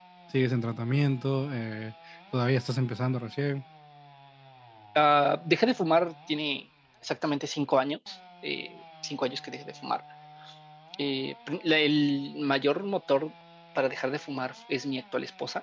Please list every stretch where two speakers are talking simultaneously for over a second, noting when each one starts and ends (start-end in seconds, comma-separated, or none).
none